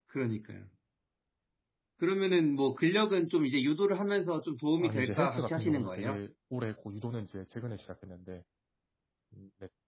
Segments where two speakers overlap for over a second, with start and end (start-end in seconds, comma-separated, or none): 4.8-6.2